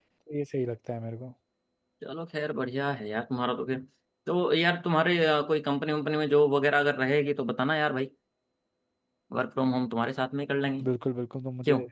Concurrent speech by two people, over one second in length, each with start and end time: none

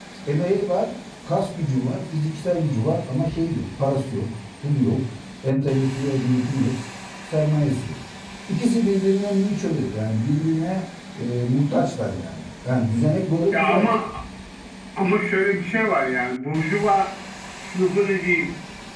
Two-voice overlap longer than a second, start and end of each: none

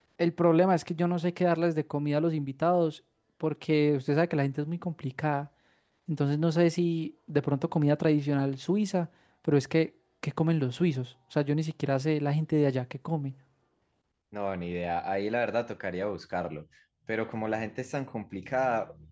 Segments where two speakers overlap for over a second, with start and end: none

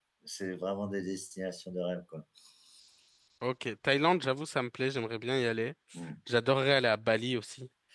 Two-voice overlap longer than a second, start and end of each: none

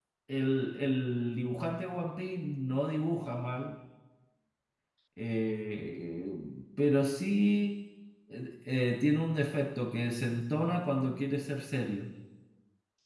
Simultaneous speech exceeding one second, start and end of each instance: none

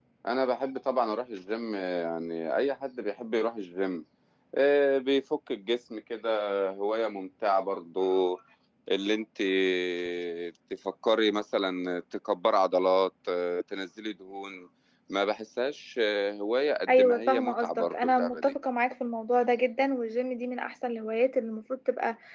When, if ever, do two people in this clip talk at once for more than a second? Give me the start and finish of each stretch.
16.9-18.5

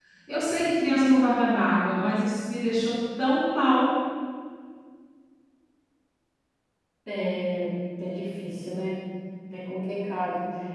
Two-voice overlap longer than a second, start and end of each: none

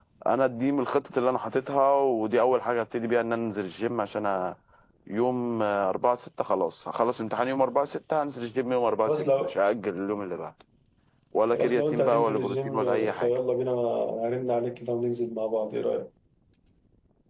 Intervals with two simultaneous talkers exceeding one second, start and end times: 11.5-13.4

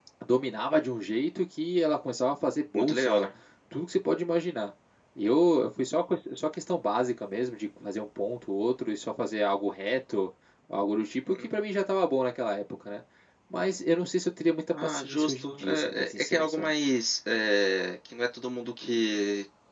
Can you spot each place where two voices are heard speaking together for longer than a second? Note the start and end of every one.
14.8-16.7

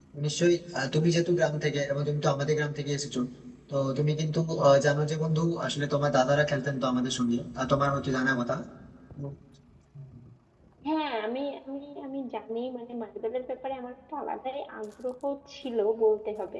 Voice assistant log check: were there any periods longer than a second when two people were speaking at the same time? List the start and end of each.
none

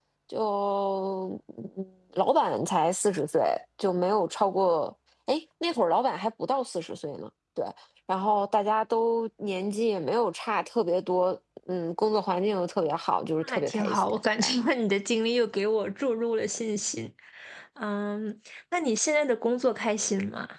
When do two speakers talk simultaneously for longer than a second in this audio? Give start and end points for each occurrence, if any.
13.4-14.7

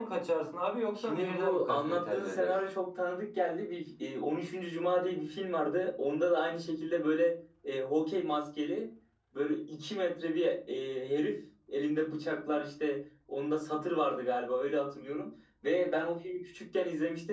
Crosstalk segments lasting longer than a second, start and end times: 1.0-2.5

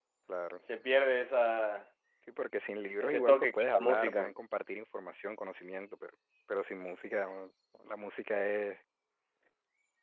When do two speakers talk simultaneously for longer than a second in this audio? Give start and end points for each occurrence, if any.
3.0-4.3

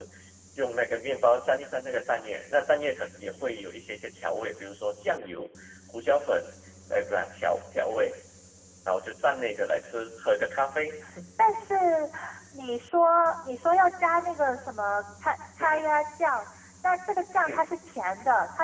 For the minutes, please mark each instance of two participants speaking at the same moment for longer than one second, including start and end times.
none

